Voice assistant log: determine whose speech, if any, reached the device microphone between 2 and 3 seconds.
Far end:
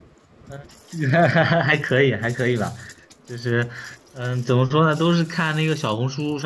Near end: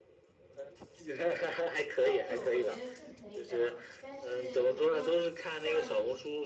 both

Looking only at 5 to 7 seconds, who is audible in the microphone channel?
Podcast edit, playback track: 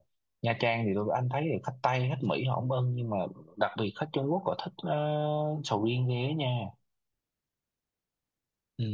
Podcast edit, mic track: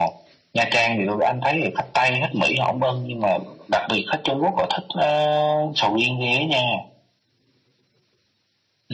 echo only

